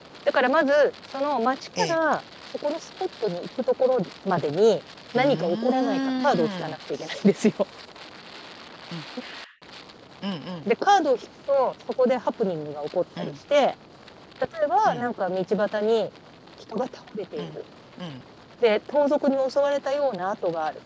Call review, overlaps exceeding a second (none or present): present